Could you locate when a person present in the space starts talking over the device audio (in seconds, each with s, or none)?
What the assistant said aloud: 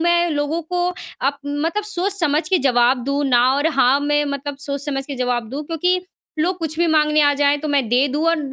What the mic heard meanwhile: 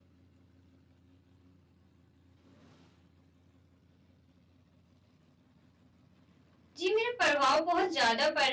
6.8 s